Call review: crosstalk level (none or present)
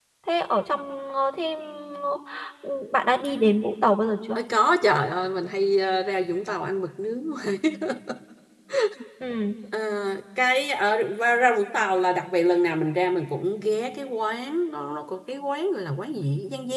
none